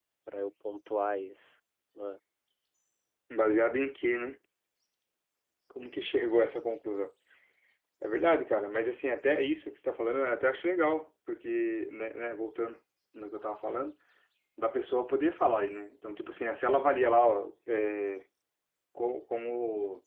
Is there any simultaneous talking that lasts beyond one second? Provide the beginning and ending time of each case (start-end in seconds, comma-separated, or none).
none